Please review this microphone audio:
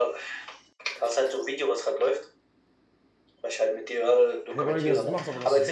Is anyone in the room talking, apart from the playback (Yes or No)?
Yes